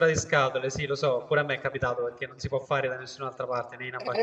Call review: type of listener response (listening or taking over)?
taking over